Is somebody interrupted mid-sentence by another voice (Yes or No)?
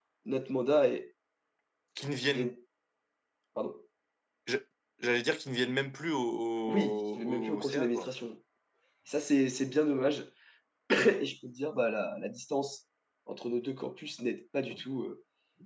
Yes